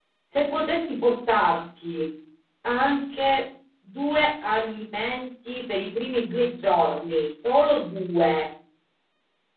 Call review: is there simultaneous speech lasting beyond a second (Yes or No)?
No